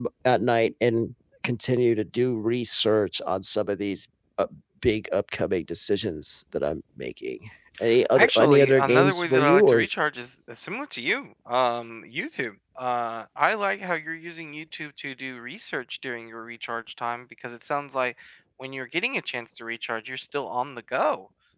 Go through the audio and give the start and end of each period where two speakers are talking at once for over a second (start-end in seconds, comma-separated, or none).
8.2-9.9